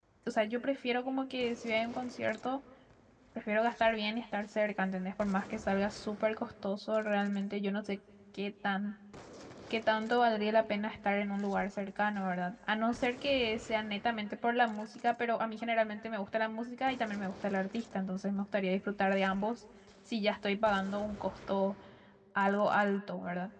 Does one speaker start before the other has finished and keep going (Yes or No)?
No